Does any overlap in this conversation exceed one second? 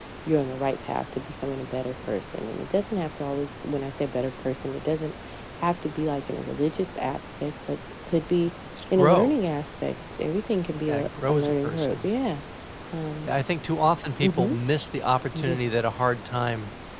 Yes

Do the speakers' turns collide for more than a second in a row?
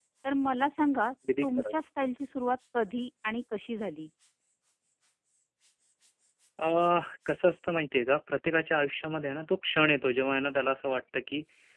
No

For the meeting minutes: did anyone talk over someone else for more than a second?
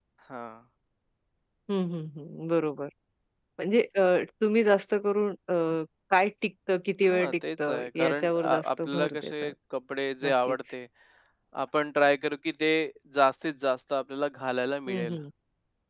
Yes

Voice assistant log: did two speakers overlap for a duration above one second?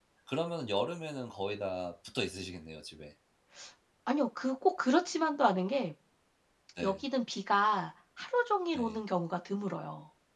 No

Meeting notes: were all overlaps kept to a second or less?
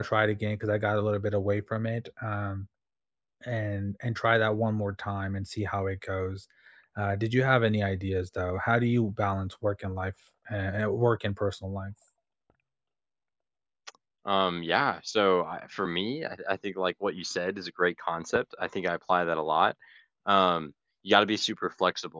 Yes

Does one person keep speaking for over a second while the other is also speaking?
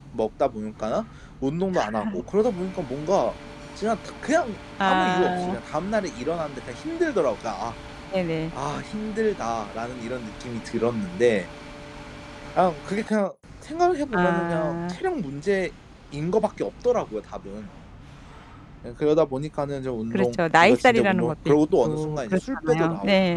Yes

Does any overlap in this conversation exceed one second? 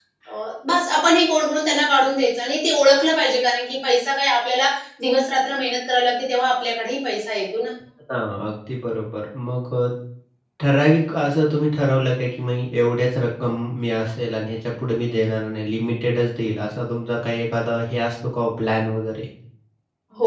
No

